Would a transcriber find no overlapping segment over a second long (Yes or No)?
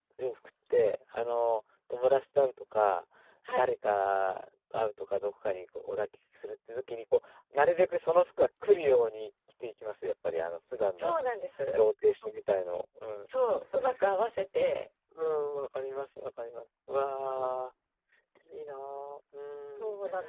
Yes